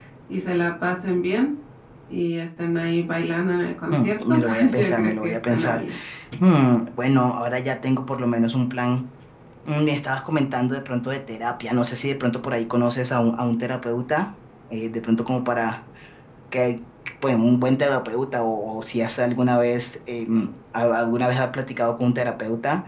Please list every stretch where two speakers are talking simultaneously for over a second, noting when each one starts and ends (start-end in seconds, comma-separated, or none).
3.9-5.8